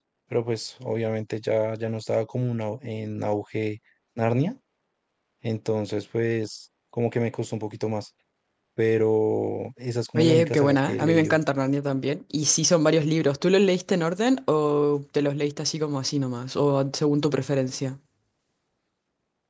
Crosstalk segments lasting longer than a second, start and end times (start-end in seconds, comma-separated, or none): 10.2-11.4